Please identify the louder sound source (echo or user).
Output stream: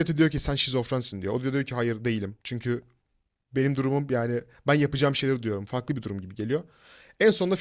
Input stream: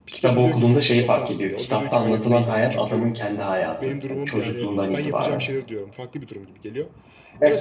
user